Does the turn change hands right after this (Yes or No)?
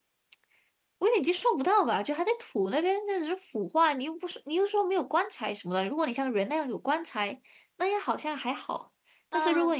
No